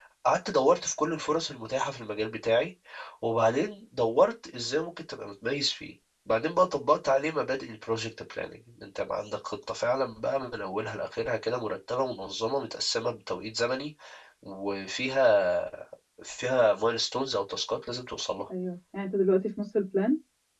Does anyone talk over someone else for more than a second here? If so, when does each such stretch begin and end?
none

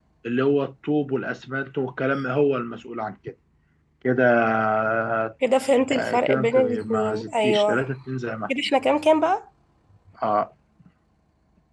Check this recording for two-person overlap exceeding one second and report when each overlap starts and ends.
5.9-7.8

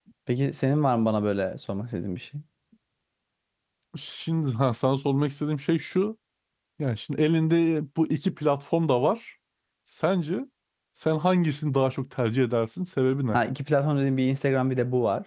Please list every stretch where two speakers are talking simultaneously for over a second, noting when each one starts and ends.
none

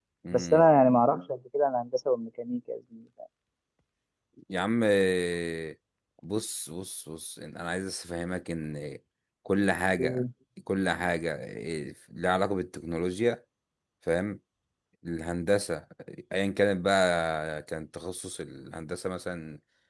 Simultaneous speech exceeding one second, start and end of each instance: none

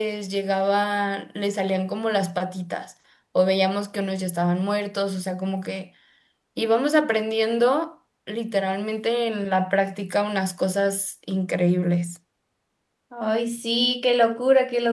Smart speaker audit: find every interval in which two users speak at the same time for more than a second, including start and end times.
none

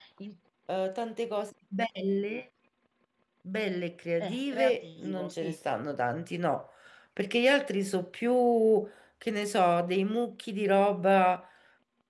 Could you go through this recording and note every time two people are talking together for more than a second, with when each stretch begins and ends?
4.2-5.6

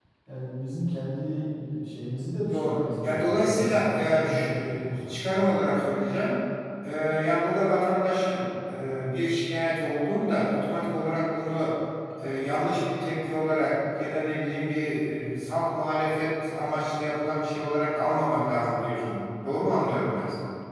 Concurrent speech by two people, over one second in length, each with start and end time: 2.5-5.5

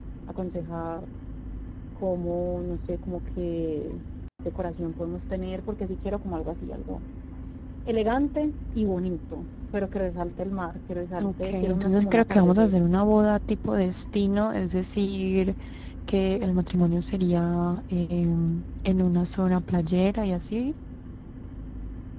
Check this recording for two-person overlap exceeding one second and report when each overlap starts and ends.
11.2-12.8

